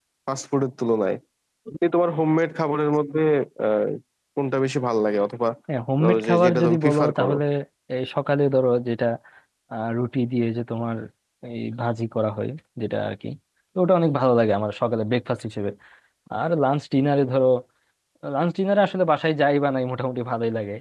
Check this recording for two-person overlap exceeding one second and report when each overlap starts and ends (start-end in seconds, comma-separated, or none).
6.0-7.3